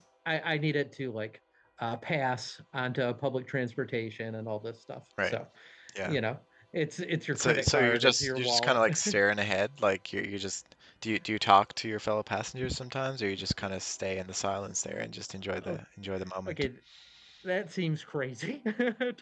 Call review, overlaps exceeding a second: present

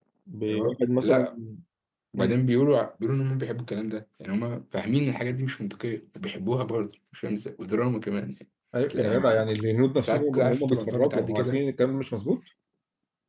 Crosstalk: present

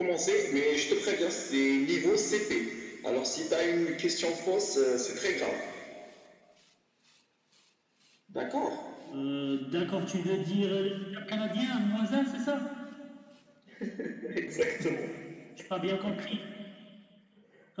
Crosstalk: none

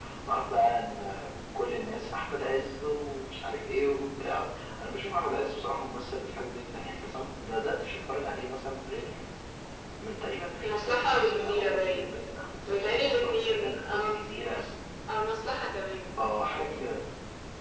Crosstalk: present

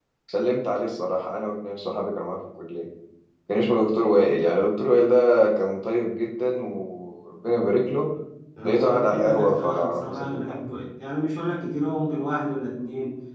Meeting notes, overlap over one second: present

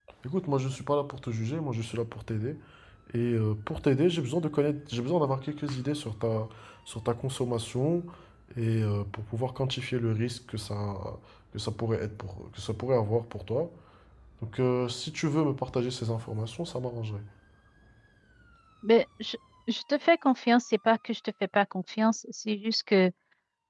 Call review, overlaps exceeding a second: none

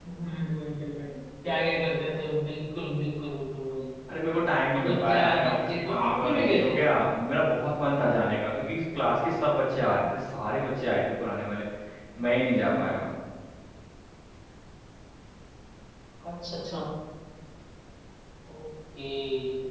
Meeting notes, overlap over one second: present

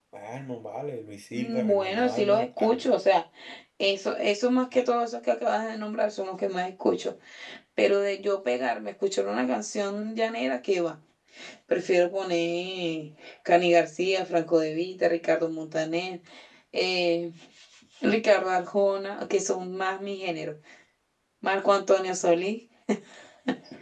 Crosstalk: present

